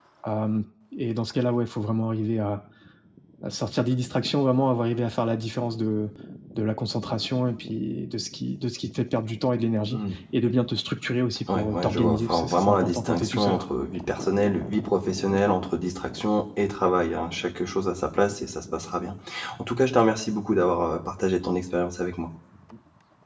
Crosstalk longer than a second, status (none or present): present